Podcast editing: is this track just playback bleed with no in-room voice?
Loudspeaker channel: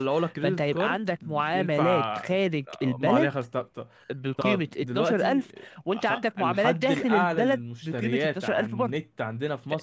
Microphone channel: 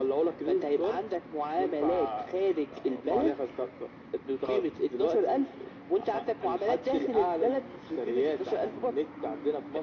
Yes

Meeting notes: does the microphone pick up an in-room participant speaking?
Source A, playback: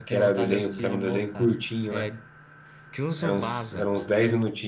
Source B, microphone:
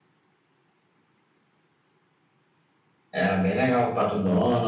Yes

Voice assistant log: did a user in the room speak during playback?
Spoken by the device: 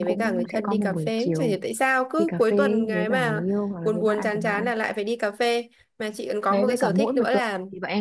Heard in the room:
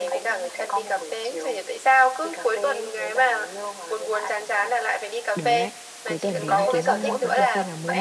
Yes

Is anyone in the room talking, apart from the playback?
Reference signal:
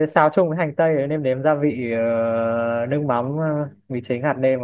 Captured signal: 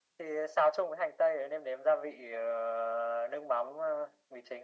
No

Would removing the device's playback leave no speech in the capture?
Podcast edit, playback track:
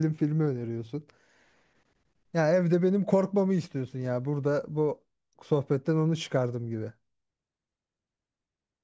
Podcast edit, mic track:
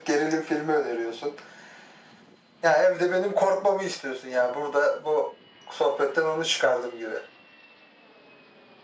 Yes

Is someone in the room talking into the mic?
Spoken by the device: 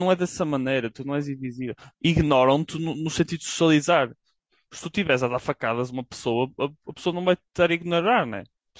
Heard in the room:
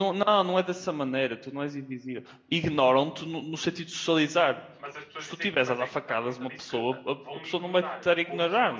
Yes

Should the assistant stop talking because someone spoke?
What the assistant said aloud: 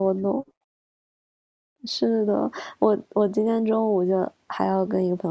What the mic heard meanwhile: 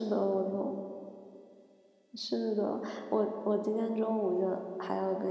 No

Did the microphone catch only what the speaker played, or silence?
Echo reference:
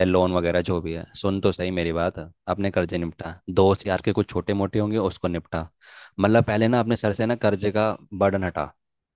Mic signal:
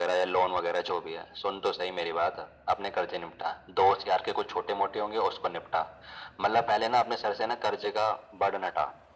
Yes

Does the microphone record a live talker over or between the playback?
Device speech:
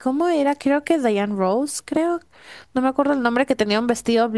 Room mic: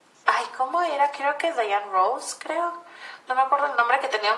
No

